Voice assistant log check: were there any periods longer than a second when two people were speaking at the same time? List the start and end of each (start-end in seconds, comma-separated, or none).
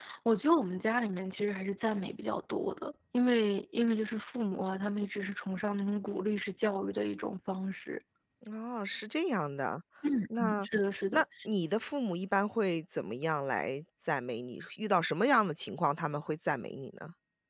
none